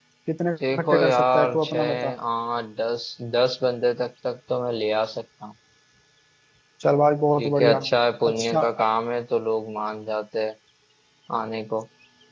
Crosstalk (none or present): present